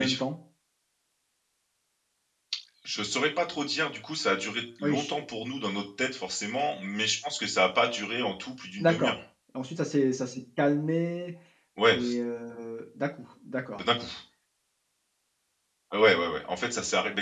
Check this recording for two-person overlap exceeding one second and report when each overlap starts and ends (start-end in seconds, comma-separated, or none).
none